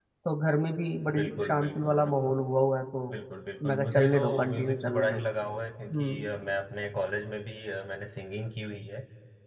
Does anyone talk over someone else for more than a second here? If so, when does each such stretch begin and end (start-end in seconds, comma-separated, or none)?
1.1-2.4, 3.7-5.2